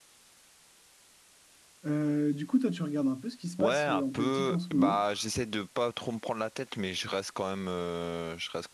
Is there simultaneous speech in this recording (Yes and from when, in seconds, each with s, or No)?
Yes, from 3.6 s